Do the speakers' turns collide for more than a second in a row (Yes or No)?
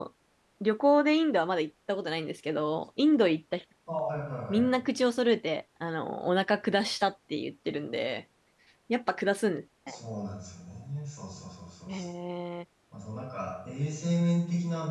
No